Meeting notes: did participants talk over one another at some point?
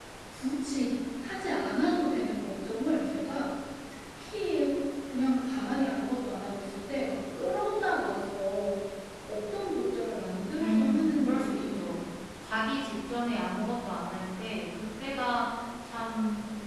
Yes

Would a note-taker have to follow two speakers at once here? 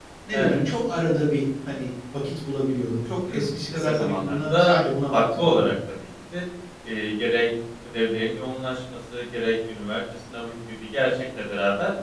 Yes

